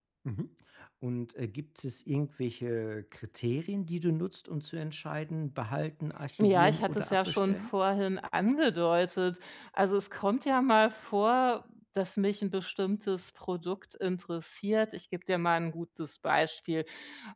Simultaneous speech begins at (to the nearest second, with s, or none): 6 s